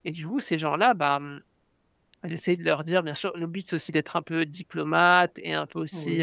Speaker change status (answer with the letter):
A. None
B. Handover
A